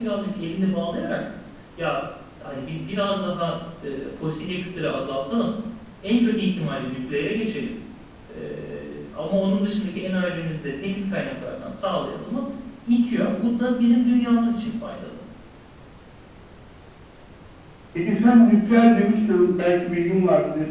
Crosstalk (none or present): none